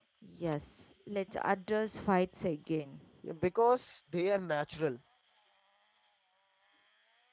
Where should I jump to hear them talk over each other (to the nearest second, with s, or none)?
none